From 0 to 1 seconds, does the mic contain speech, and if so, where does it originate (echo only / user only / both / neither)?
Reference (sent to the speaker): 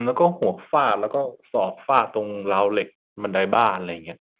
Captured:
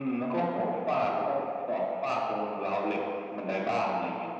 echo only